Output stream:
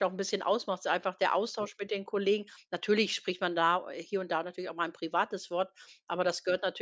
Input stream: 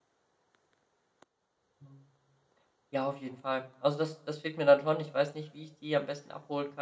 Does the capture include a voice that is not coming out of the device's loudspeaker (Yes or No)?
Yes